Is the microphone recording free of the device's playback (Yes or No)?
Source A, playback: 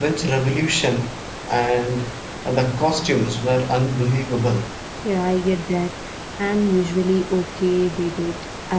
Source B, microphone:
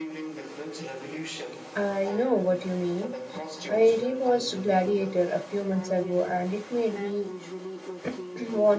No